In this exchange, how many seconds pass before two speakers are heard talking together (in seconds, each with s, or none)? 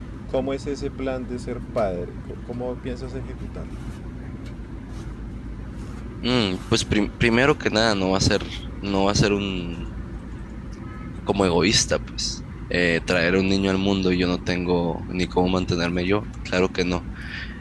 none